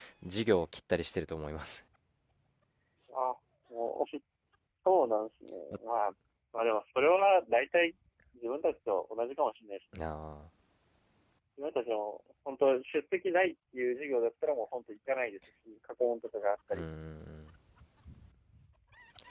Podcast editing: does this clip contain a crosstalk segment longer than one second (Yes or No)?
No